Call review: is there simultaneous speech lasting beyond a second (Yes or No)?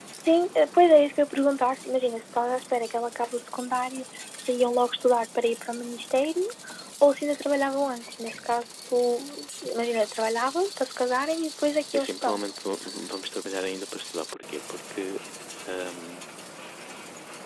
No